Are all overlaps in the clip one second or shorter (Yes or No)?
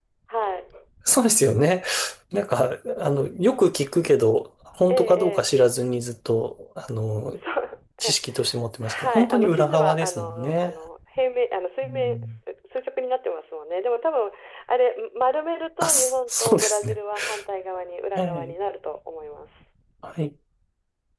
No